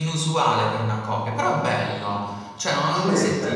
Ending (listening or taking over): listening